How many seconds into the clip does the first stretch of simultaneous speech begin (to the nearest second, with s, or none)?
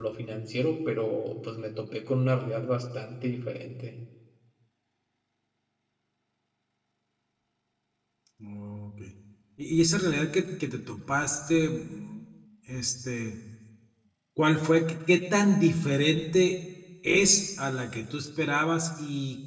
none